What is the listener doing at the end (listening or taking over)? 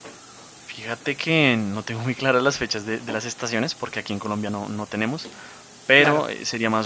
listening